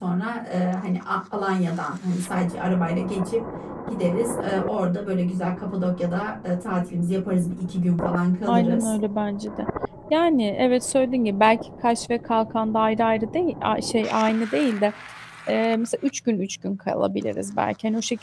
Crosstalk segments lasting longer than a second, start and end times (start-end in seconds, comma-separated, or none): none